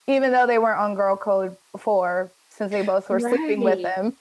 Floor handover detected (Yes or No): Yes